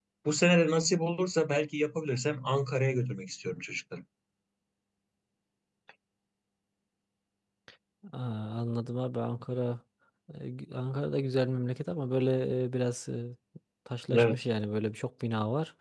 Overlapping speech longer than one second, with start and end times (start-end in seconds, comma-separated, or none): none